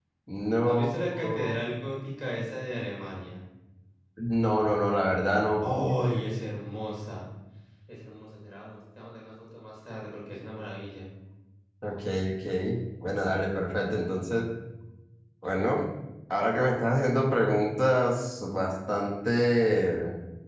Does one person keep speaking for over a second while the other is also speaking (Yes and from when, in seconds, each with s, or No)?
No